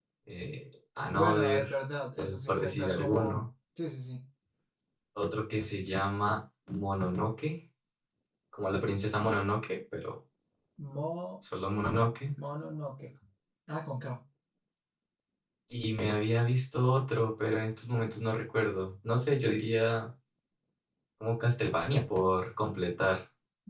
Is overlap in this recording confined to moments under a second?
No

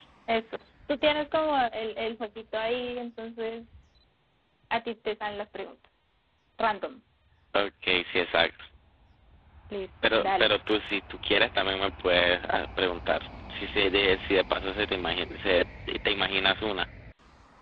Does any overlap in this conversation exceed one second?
No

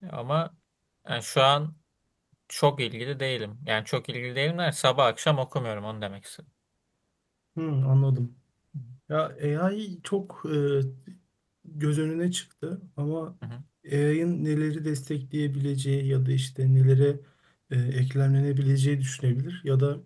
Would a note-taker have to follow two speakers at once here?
No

